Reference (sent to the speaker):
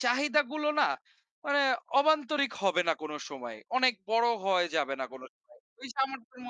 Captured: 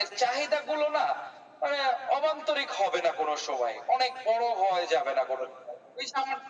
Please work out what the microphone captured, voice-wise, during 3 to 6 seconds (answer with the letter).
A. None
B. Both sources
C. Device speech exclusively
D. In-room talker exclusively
C